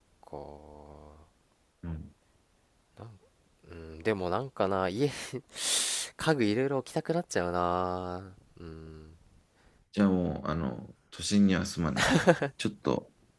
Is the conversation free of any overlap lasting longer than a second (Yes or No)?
Yes